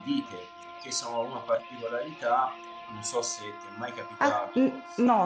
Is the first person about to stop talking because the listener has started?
Yes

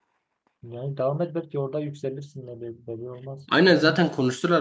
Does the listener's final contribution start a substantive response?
Yes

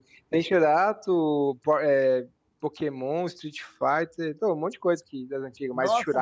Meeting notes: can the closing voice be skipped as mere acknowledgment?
No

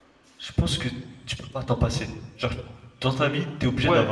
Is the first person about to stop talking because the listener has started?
Yes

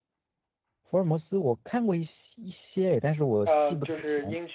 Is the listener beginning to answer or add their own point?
Yes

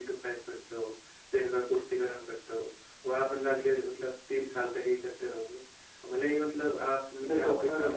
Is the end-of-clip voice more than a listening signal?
Yes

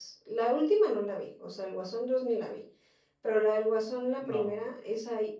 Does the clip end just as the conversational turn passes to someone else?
No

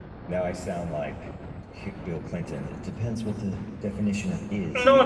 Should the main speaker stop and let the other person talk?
Yes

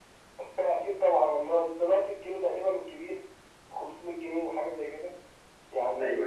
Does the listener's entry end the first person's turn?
No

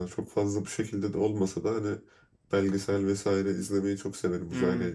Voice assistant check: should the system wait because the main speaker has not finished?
No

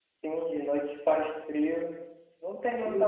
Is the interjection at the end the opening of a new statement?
No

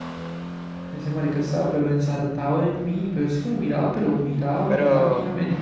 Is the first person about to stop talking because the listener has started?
Yes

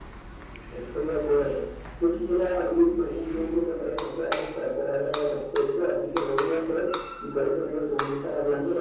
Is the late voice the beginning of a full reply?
No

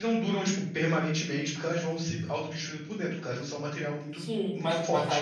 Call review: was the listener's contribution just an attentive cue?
No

